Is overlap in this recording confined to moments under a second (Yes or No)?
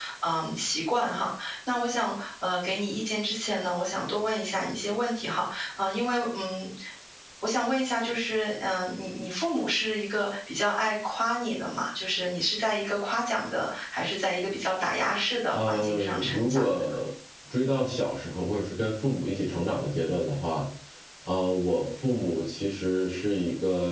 No